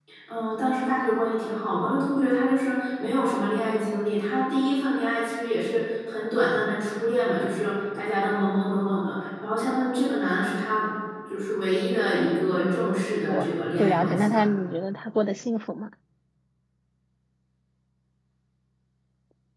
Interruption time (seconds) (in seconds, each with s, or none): 12.6 s